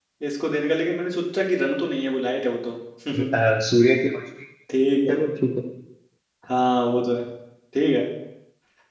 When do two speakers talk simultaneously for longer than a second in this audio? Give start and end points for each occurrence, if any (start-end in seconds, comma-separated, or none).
none